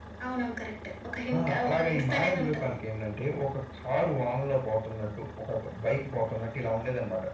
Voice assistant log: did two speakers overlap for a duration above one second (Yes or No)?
Yes